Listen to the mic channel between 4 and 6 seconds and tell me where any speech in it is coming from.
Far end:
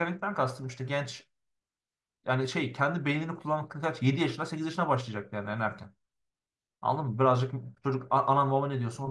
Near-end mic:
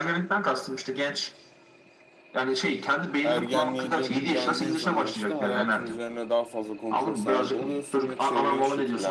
both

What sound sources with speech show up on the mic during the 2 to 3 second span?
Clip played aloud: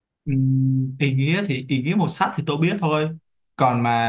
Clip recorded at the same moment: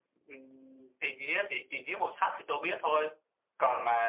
echo only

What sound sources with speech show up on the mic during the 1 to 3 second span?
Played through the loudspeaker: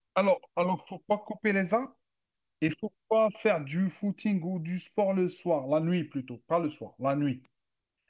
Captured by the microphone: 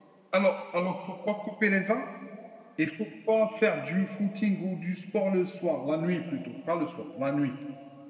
echo only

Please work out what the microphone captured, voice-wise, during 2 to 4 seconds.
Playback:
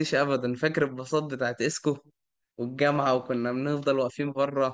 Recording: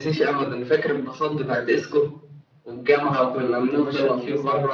both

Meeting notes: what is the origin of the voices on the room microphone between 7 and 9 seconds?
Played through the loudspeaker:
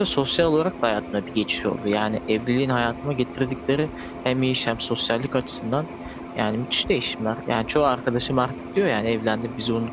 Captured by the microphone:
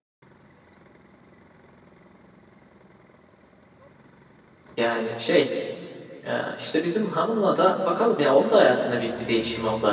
user only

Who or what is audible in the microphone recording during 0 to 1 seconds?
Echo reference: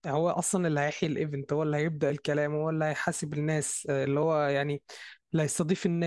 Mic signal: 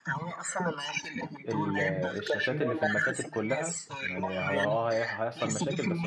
echo only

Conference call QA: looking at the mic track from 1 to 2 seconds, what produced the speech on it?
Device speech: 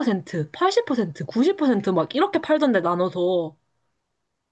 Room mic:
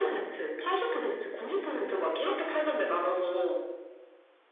echo only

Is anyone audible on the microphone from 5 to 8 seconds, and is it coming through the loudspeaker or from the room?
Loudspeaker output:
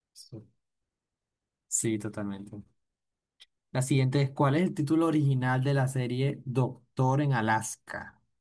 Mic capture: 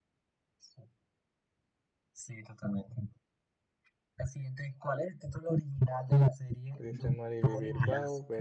both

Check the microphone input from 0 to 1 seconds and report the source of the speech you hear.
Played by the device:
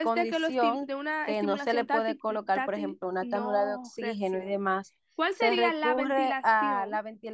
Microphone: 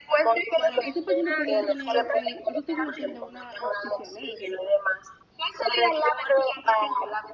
both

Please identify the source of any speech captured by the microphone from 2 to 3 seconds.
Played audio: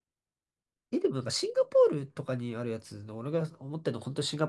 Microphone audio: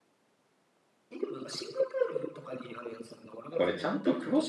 echo only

